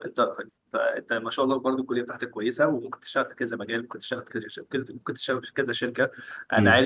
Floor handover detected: No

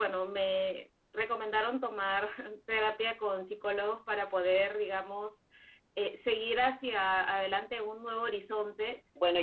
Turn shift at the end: Yes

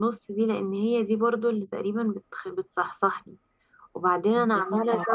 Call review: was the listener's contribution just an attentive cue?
Yes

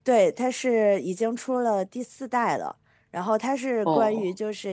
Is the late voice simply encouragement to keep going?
Yes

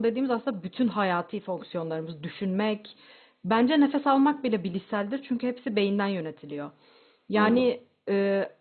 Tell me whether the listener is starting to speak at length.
No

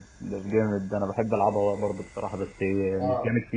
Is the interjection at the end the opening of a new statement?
Yes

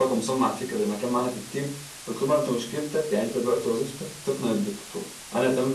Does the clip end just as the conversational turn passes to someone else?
No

